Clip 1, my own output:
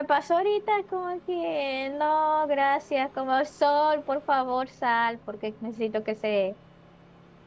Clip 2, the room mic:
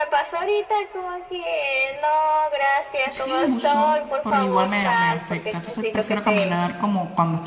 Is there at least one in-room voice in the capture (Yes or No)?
Yes